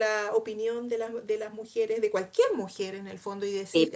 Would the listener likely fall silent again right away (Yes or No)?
Yes